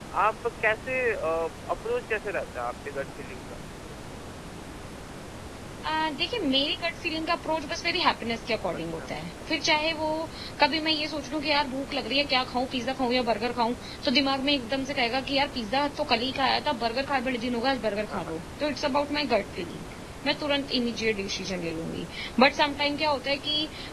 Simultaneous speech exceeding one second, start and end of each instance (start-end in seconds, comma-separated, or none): none